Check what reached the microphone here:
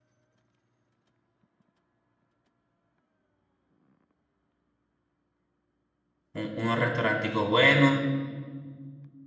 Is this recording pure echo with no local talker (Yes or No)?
No